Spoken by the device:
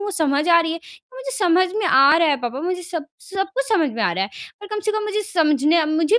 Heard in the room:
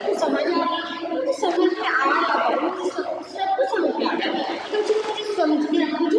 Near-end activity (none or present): none